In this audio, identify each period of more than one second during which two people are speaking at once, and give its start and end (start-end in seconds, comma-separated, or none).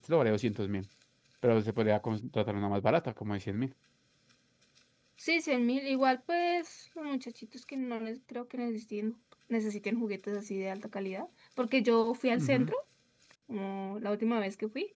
none